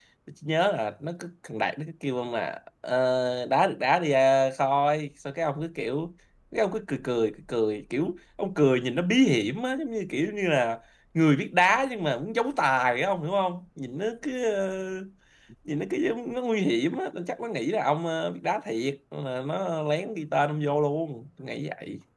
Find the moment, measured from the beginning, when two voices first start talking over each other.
none

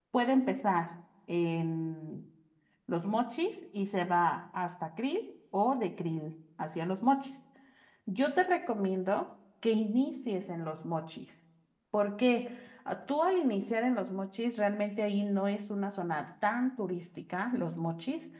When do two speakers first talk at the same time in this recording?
none

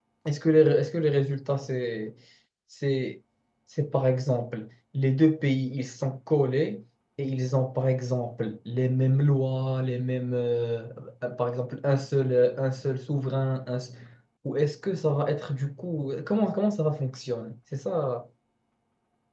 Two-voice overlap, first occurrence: none

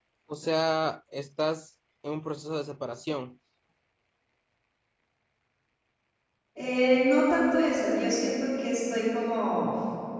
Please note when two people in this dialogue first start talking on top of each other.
none

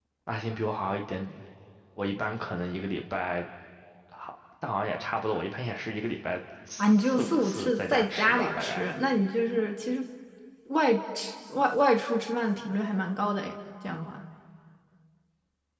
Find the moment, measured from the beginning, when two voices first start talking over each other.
7 s

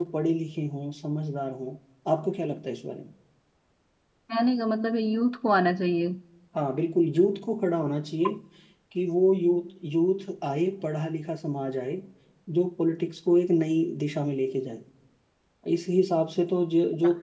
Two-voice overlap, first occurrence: none

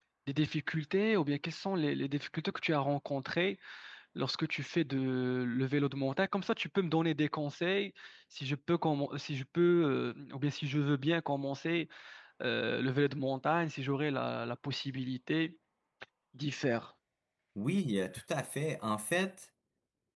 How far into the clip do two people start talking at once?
none

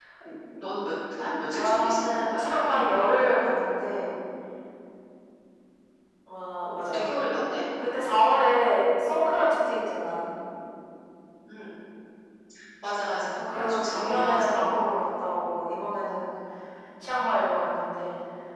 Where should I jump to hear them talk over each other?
2 s

